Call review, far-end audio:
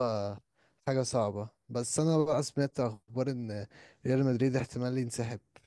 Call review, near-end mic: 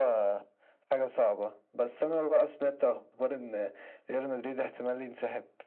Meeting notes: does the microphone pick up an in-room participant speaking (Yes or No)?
No